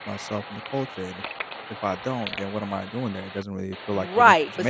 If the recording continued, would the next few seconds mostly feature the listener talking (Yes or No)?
Yes